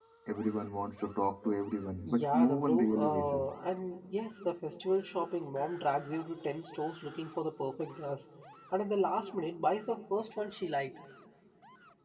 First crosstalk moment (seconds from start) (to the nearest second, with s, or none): 2 s